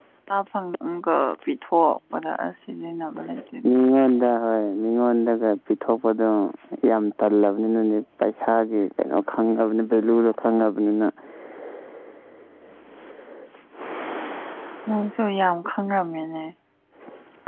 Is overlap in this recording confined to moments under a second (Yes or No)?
Yes